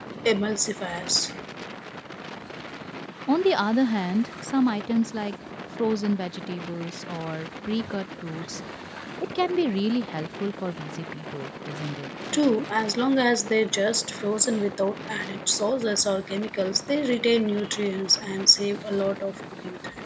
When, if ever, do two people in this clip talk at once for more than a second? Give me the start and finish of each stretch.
none

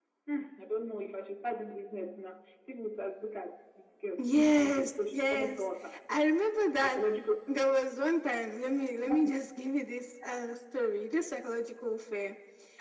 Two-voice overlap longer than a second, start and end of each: 4.2-5.6

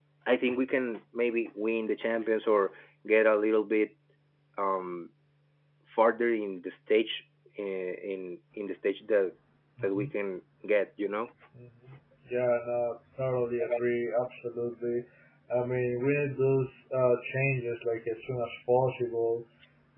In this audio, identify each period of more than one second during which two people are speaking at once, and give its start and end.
none

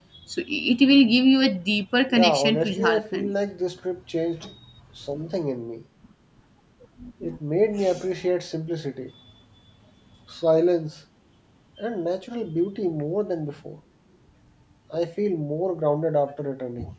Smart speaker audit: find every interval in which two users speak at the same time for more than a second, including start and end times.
2.1-3.3

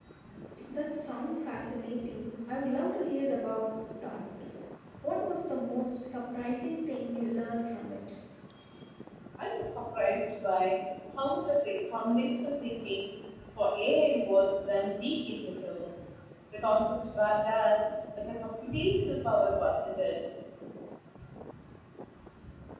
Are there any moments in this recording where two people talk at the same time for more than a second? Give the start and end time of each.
none

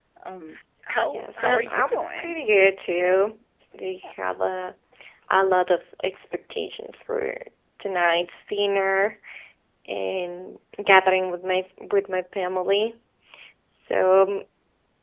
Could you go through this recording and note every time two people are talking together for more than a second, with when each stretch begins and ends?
1.0-2.4

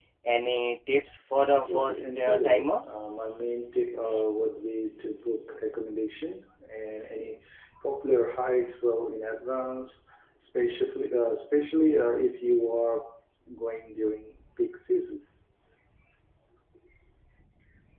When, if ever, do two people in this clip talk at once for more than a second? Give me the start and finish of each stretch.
1.5-2.8

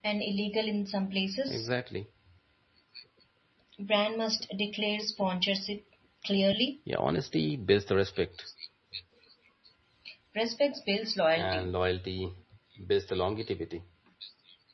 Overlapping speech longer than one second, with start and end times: none

